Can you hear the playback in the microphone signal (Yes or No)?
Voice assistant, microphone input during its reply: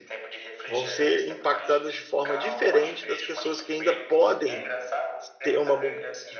Yes